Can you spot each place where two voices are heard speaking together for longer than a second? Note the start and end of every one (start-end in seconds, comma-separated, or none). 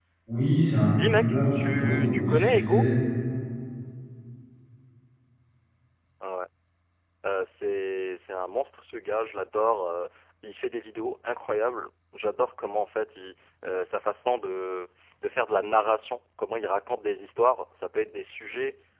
0.9-2.9